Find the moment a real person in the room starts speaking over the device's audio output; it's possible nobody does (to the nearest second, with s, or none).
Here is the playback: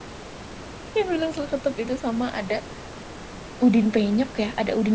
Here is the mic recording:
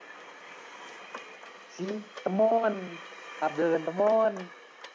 2 s